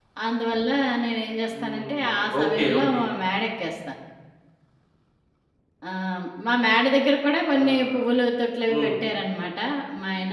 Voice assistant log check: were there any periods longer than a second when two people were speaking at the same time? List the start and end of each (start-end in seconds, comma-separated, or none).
1.5-3.0